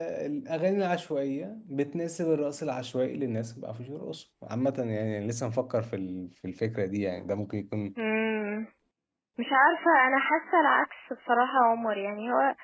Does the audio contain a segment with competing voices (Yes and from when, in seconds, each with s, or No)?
No